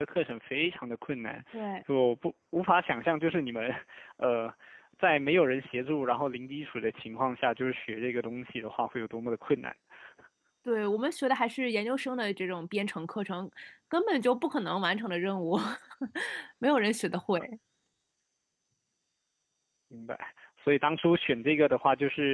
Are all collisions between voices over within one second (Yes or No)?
Yes